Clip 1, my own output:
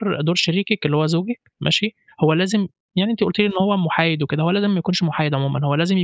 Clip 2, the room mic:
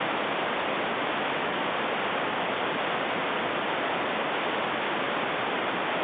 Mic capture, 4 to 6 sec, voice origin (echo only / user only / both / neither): neither